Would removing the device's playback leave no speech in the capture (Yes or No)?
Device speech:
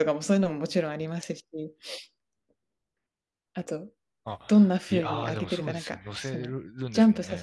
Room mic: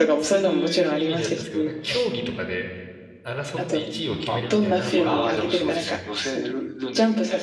No